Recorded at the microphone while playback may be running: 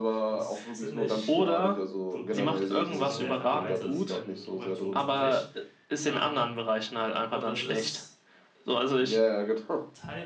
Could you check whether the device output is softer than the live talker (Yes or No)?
No